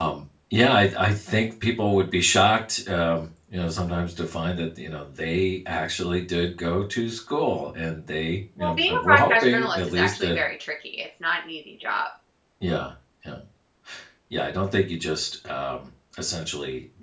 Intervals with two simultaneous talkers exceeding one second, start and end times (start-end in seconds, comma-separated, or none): 8.6-10.4